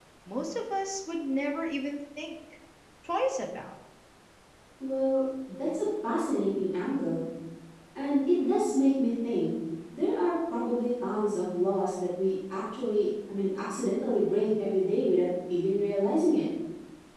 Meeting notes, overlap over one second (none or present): none